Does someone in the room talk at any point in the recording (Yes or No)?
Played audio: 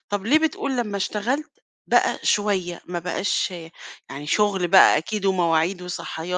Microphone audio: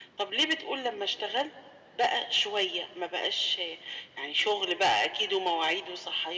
No